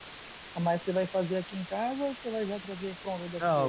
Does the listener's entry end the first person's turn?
Yes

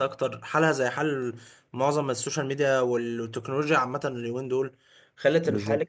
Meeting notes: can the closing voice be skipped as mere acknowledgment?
Yes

